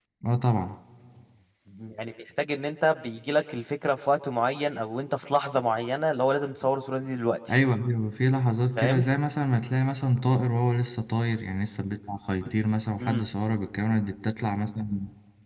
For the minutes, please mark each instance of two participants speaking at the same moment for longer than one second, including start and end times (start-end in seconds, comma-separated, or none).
none